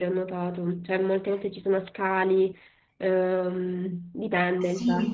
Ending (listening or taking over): taking over